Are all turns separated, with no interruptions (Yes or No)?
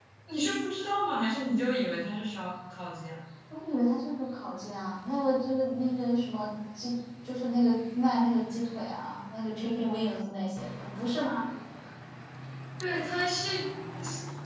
Yes